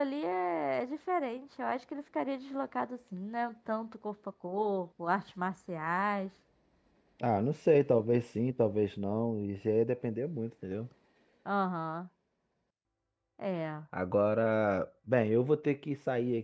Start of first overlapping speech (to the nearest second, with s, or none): none